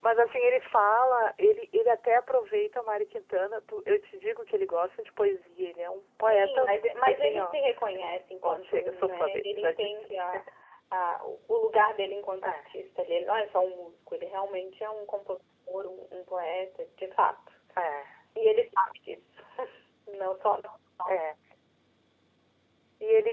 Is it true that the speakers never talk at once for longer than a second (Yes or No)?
No